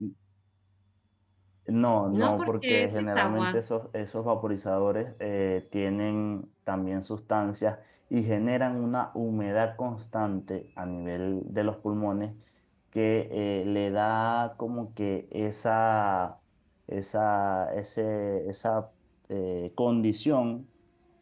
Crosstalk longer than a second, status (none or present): present